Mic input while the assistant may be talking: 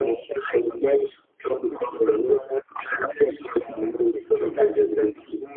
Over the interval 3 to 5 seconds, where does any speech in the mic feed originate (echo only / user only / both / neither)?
echo only